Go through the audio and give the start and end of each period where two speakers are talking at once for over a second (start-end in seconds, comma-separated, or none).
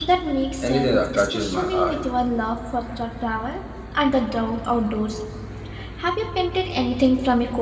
0.6-2.0